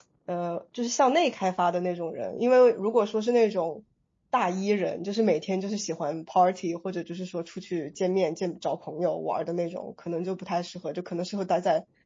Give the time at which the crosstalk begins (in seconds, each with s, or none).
none